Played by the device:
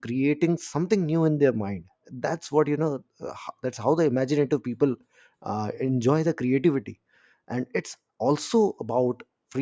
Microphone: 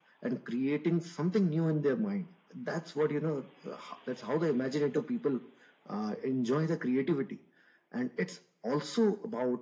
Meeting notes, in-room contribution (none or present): none